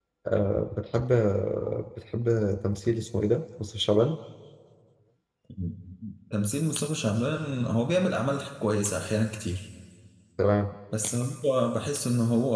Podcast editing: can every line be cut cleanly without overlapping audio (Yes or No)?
Yes